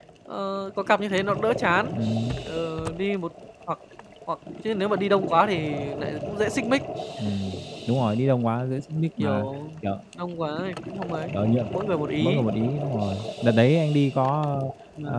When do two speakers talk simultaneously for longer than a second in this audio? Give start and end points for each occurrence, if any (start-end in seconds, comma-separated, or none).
none